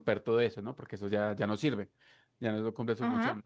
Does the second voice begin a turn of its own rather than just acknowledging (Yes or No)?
No